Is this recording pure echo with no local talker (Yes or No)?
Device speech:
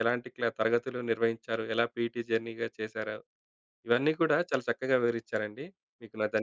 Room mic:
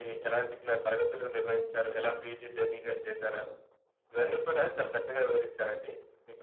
Yes